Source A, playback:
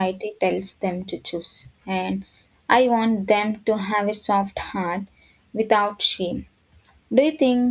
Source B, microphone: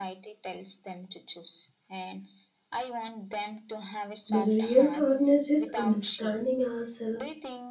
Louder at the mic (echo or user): user